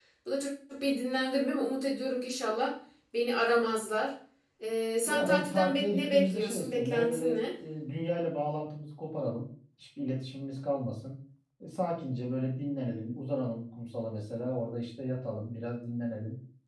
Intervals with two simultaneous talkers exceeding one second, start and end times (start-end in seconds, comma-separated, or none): 5.1-7.4